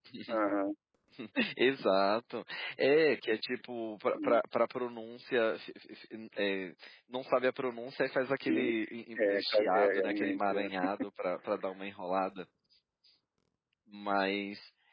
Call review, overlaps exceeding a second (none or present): present